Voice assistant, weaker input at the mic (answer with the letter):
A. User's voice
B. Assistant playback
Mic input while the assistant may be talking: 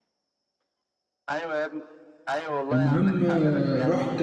B